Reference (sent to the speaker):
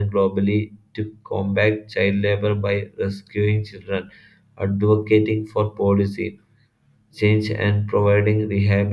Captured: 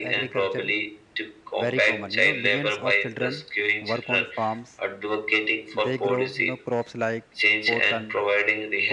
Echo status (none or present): present